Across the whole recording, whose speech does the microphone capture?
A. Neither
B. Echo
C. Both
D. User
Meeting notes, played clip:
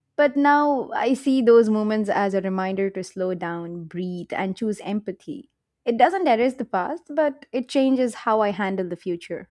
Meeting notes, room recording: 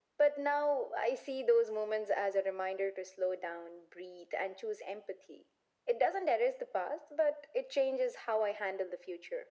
B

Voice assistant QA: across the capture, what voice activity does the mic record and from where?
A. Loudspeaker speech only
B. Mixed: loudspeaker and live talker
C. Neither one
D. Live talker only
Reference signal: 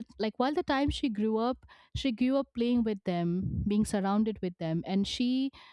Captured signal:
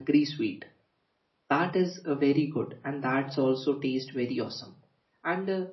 D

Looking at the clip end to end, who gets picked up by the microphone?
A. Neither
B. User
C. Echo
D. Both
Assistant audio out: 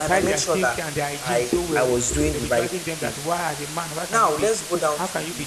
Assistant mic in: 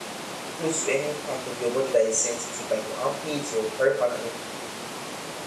B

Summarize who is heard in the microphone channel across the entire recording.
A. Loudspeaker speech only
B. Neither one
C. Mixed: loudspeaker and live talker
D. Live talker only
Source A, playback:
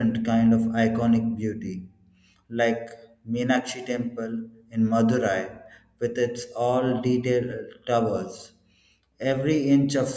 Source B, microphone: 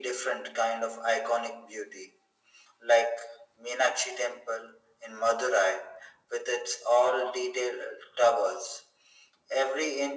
A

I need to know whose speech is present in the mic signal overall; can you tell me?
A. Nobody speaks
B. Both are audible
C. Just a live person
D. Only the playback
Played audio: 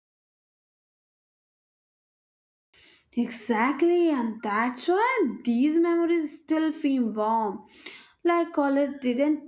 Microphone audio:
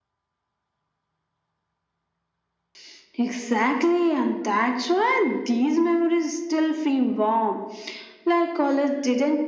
D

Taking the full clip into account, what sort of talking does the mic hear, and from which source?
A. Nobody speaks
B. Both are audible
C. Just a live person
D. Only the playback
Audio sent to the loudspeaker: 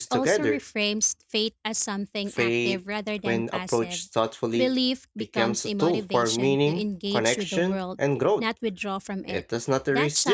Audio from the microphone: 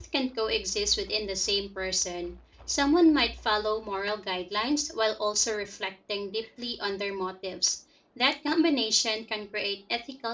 C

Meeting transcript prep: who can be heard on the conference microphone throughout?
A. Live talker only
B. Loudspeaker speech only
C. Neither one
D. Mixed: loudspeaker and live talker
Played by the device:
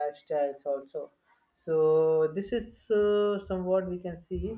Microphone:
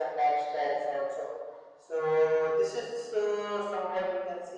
B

